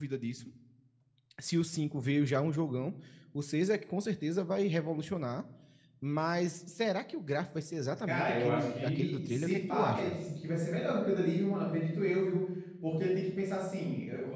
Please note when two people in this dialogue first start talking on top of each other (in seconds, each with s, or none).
8.1 s